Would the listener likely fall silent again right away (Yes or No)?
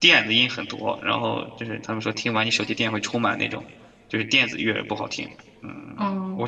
No